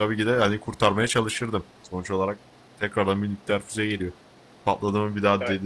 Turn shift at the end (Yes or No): No